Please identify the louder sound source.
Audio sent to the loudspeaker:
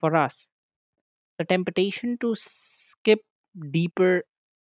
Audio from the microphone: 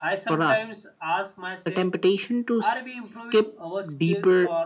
echo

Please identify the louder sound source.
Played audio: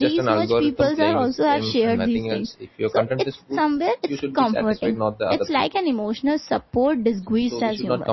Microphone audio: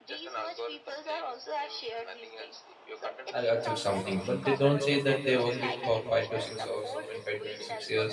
user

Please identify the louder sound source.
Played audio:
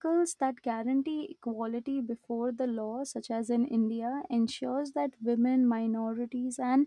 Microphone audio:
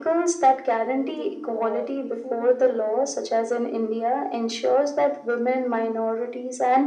echo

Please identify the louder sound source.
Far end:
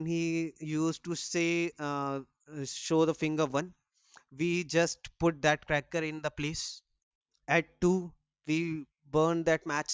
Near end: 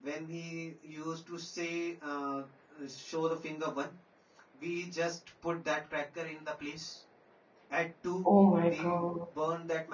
user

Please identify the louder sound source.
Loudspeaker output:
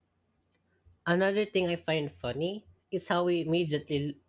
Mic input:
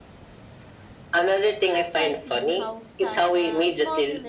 echo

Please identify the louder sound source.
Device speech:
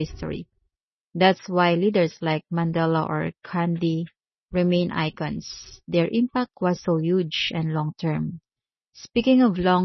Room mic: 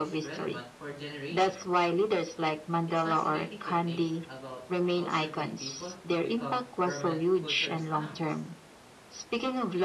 echo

